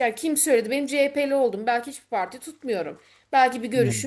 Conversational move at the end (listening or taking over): listening